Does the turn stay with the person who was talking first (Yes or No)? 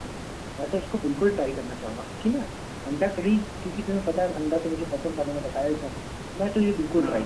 Yes